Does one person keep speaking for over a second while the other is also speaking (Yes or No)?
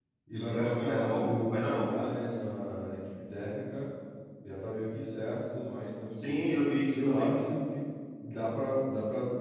Yes